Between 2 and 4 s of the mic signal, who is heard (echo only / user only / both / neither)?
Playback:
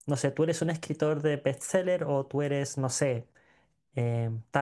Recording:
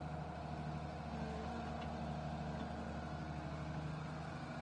neither